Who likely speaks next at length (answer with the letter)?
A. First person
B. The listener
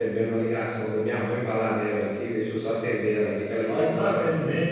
B